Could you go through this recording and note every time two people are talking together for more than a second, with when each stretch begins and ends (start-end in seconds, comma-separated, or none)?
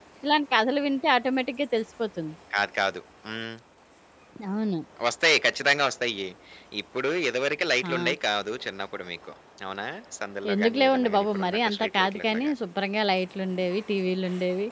10.5-12.5